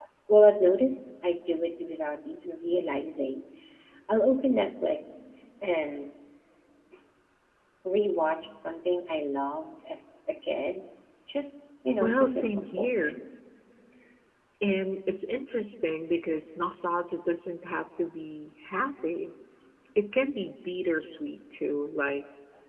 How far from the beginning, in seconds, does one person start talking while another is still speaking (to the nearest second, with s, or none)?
12 s